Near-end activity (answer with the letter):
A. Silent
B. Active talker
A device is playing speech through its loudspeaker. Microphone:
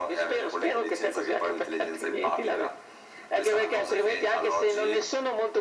A